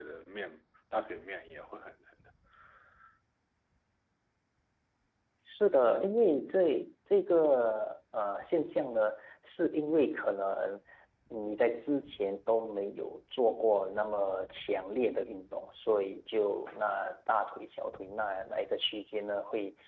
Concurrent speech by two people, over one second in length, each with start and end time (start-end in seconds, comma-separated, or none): none